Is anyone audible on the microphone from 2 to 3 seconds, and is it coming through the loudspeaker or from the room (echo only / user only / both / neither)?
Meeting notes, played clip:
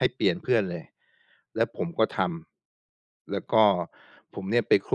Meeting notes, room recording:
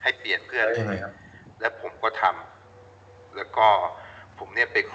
echo only